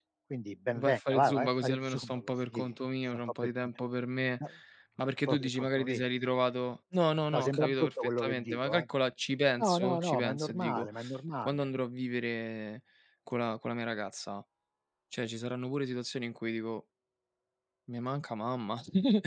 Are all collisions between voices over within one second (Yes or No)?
No